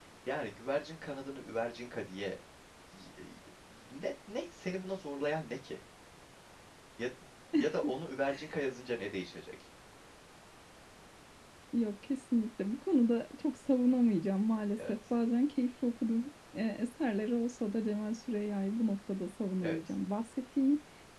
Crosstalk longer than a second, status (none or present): none